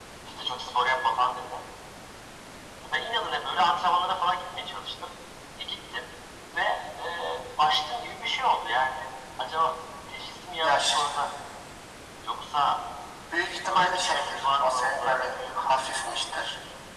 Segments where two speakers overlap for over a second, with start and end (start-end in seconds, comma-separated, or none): 13.7-15.7